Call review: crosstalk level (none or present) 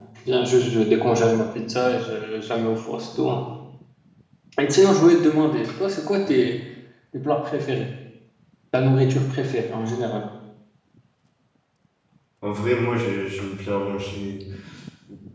none